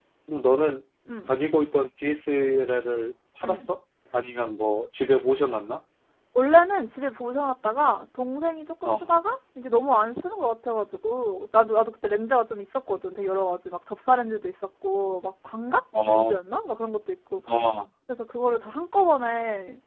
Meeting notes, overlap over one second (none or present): none